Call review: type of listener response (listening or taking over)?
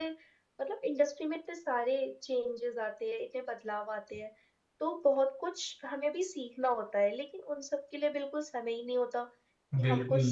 listening